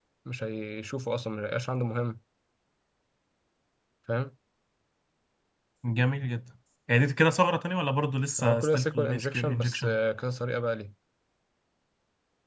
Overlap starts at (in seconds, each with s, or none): 8.4 s